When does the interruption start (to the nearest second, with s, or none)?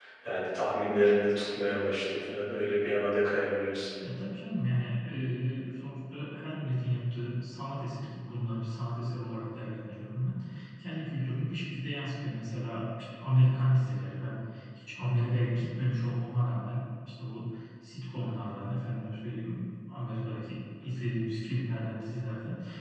none